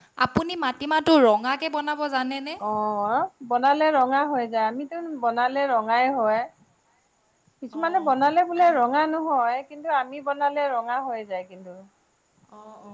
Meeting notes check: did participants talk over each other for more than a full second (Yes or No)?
No